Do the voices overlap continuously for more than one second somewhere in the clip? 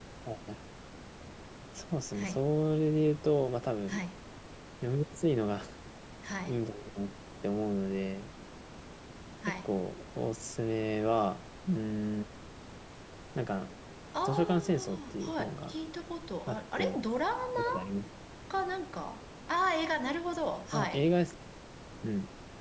Yes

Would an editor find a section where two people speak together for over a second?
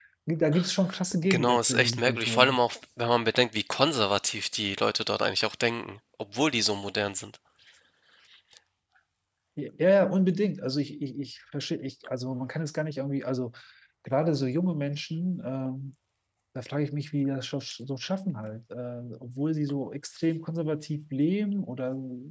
Yes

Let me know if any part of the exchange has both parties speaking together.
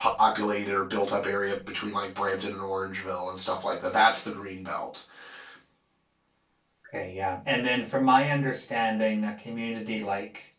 No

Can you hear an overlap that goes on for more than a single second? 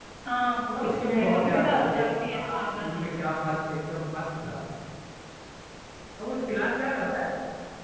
Yes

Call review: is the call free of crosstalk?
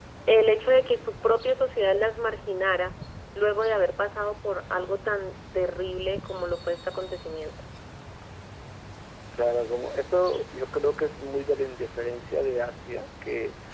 Yes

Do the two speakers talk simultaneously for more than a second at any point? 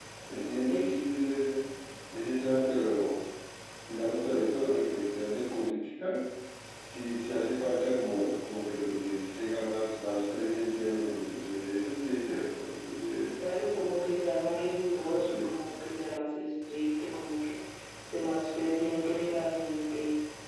No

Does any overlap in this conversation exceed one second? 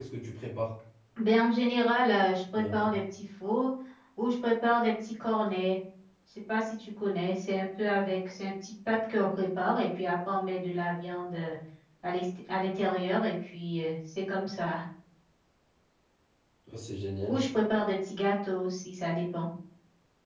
No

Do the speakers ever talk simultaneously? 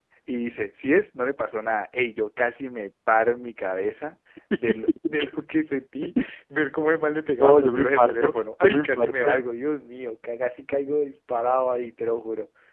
Yes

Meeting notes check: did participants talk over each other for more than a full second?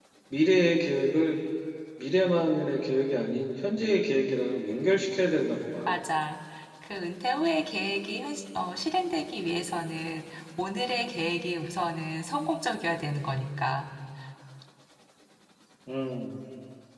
No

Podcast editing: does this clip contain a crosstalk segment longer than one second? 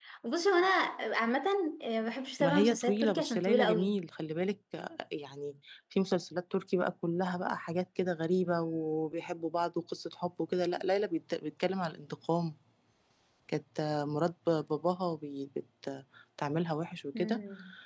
Yes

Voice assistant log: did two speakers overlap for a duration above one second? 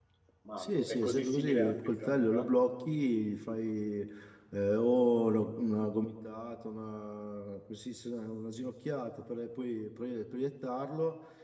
Yes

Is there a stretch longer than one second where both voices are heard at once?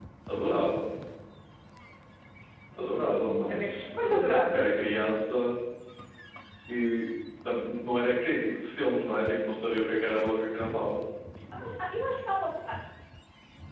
Yes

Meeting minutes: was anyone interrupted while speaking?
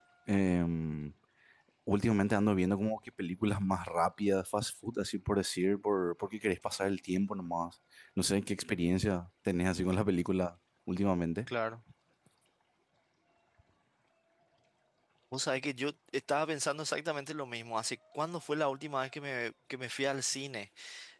No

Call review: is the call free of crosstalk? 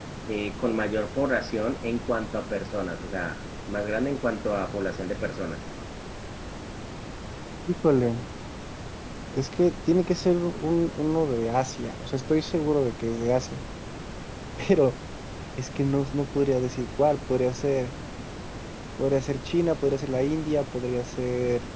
Yes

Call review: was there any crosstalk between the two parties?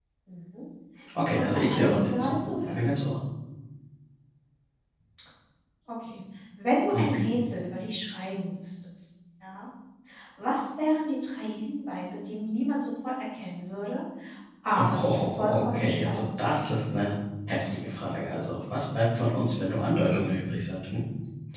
Yes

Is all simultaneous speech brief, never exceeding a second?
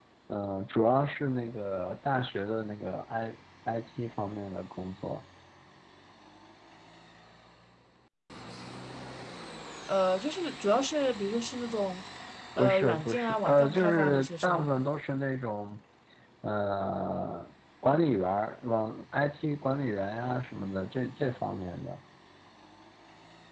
No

